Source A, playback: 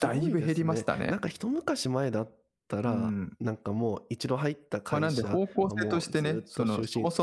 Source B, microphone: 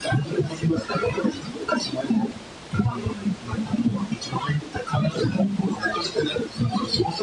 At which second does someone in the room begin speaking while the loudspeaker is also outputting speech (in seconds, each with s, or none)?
none